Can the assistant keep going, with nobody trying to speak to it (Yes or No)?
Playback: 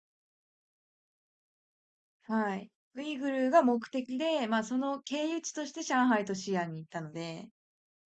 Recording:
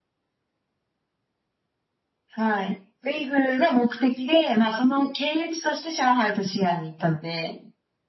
Yes